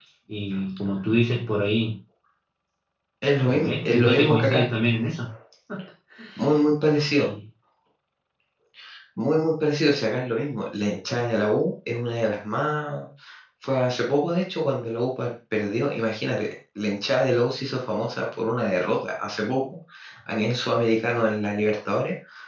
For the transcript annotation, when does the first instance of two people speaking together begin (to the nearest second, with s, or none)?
3 s